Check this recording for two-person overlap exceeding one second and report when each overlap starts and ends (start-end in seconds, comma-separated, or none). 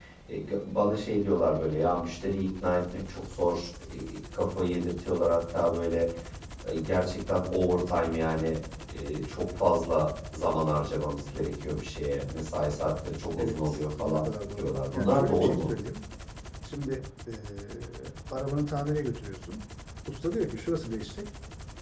13.4-15.7